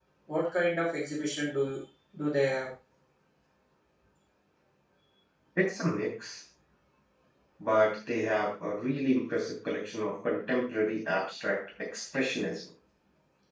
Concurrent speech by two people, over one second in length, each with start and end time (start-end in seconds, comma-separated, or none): none